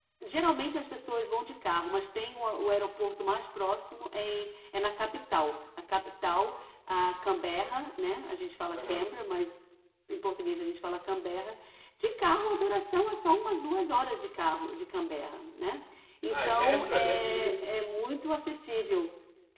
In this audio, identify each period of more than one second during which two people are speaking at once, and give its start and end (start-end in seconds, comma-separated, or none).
16.3-17.6